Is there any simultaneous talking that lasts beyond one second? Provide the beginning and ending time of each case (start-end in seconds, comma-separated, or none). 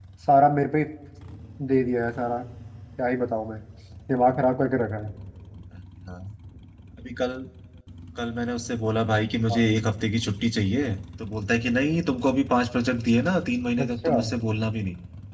none